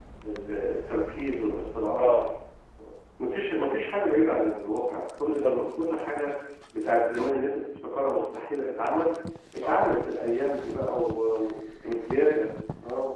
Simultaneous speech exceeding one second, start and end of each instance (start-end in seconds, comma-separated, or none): none